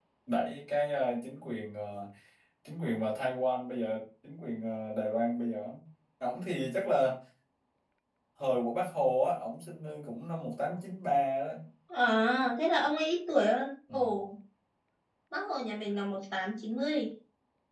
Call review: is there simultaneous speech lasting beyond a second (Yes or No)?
No